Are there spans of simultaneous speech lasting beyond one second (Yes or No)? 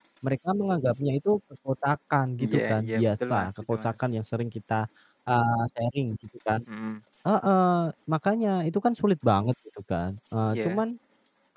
Yes